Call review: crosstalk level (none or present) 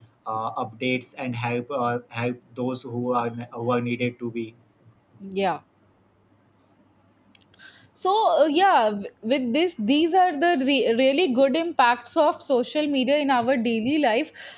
none